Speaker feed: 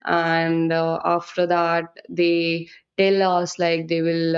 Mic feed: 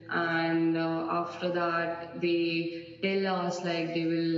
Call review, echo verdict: present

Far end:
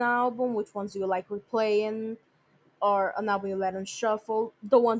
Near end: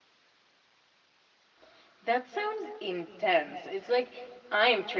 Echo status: none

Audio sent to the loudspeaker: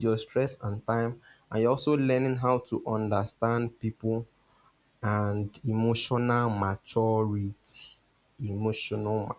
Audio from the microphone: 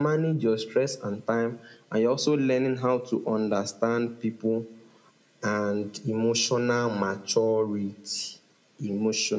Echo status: present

